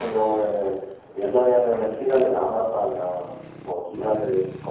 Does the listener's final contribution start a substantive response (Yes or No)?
No